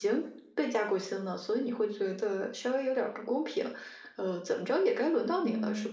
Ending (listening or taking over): taking over